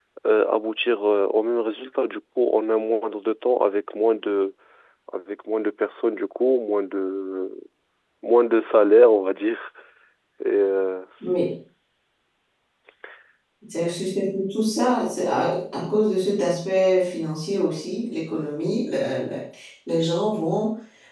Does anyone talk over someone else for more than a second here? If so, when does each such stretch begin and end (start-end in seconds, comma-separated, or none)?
none